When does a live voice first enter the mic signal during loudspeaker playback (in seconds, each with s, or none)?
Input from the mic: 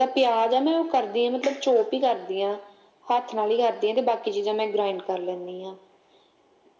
none